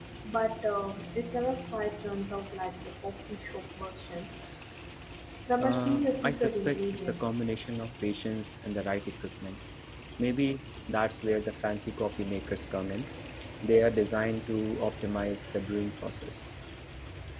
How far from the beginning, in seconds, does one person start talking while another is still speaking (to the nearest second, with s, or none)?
6 s